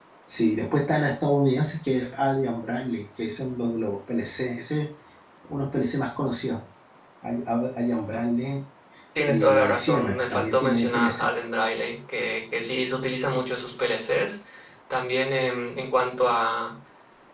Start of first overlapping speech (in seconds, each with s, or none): 9.3 s